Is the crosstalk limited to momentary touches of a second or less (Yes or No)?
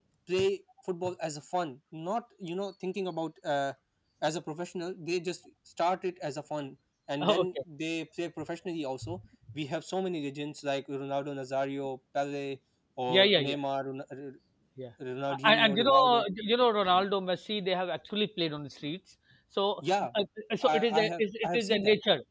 No